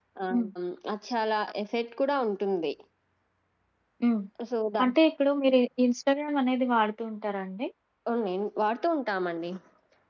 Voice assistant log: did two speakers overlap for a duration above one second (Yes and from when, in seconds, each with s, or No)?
No